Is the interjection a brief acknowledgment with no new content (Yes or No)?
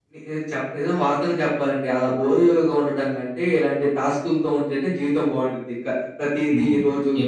No